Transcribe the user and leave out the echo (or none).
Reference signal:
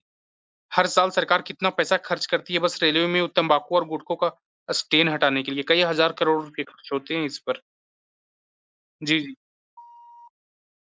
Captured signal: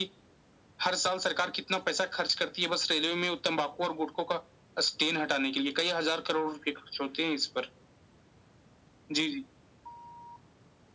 none